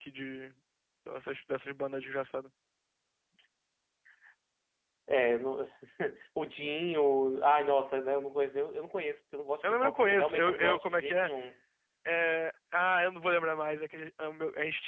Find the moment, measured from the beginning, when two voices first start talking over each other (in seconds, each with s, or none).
9.6 s